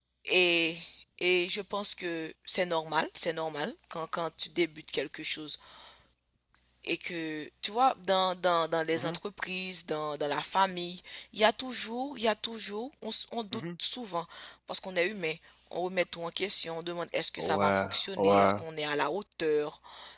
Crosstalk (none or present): present